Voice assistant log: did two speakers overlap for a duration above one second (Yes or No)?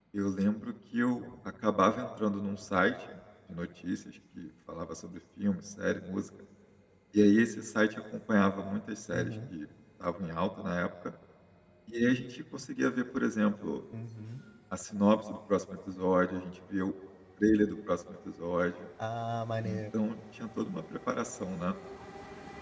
No